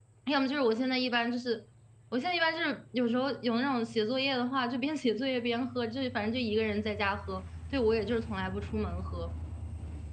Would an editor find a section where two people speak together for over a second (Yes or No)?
No